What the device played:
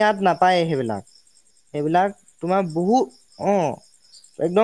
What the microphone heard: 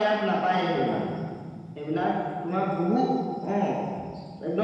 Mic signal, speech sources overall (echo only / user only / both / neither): echo only